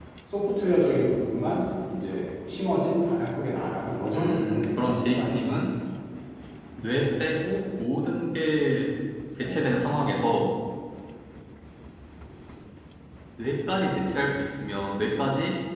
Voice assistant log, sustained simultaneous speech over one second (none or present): present